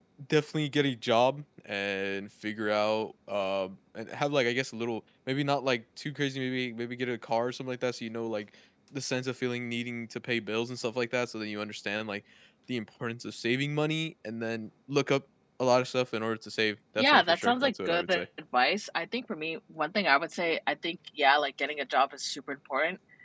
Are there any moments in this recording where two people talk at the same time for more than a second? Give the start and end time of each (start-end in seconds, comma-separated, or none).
17.0-18.2